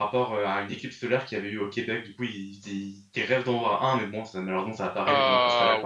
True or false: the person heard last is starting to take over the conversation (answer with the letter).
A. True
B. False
A